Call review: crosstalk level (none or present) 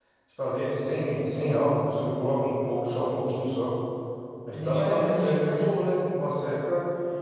present